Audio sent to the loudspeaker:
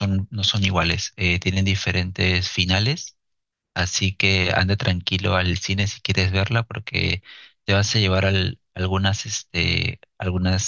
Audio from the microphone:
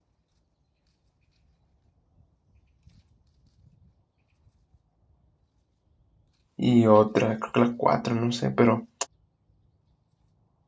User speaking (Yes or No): Yes